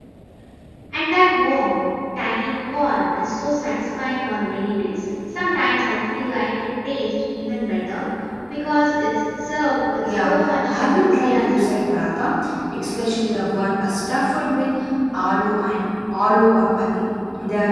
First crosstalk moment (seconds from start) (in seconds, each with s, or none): 10.0 s